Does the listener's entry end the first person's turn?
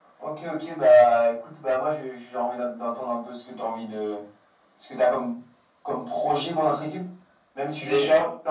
No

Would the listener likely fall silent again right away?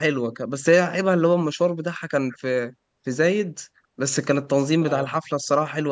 Yes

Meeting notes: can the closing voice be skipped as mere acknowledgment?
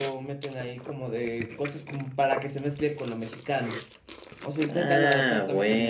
No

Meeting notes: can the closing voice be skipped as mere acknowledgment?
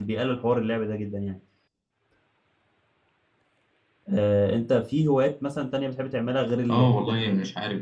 No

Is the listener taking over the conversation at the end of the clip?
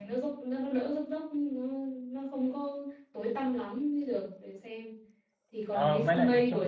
Yes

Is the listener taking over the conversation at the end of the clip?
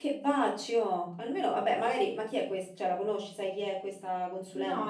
Yes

